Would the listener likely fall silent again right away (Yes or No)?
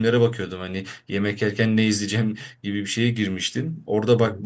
Yes